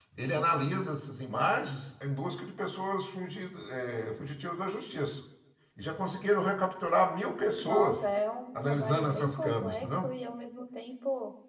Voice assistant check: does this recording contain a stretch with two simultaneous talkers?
Yes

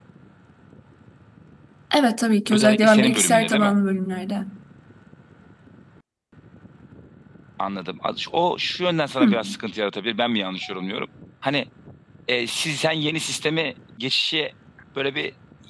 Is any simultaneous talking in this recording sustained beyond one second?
Yes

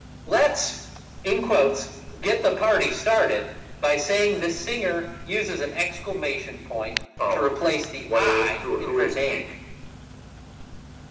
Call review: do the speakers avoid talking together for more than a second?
No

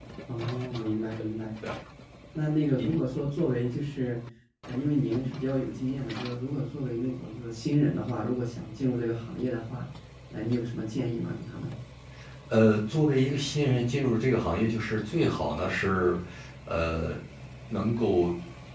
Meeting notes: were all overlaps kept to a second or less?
Yes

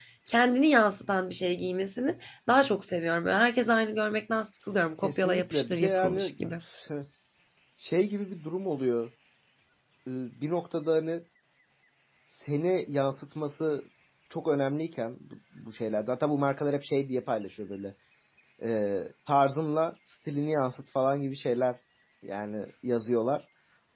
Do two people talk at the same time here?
Yes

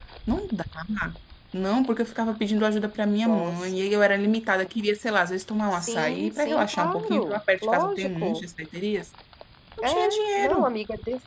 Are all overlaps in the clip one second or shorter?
No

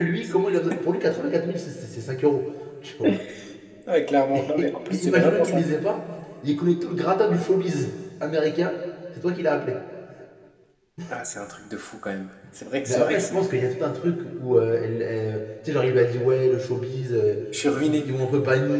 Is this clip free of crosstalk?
No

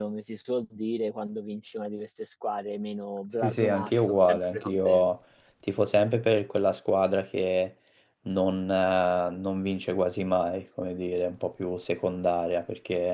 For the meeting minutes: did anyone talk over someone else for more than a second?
Yes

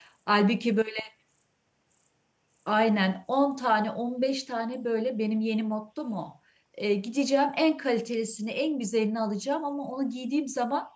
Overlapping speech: No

